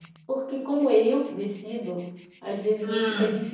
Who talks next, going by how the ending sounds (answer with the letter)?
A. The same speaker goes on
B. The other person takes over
A